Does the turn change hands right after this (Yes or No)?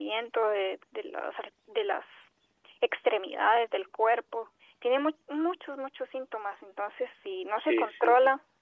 No